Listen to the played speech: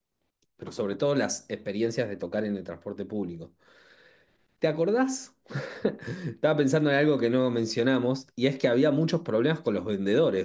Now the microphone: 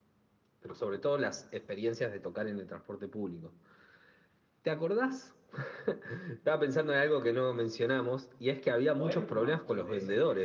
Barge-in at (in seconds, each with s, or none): 8.9 s